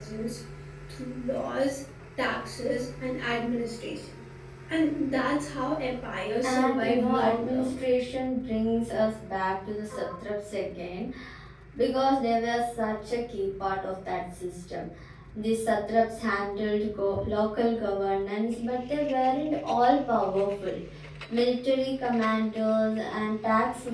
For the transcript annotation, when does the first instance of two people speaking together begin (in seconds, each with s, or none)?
6.4 s